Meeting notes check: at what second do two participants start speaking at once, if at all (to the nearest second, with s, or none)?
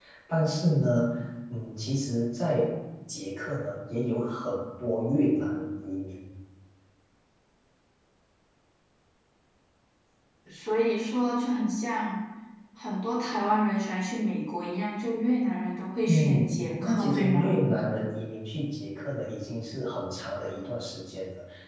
16 s